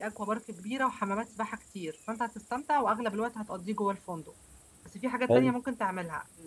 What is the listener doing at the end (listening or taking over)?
listening